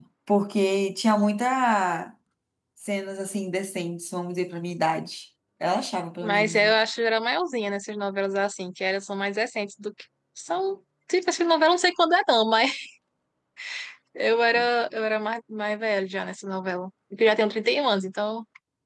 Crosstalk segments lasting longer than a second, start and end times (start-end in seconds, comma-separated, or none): none